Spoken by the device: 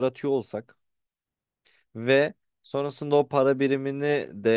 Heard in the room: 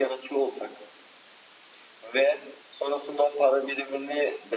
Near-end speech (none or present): none